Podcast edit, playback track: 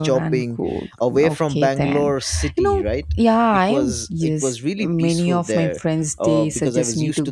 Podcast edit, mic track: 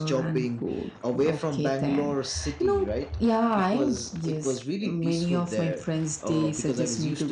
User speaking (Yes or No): No